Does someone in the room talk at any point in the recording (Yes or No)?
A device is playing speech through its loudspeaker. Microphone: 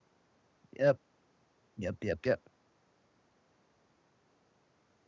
Yes